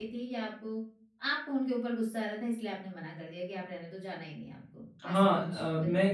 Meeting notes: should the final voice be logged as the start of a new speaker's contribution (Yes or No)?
Yes